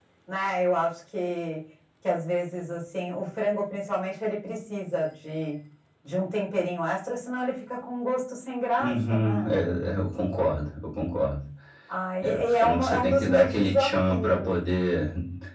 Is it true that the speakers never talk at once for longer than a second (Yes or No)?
No